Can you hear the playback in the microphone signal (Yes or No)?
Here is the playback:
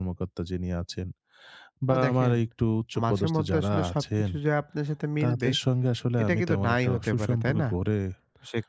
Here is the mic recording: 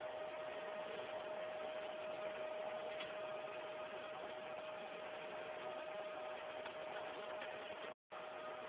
No